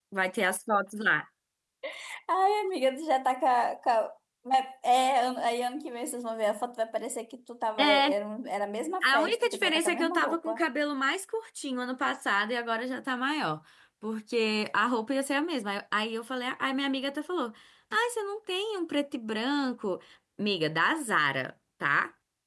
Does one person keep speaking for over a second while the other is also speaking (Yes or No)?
Yes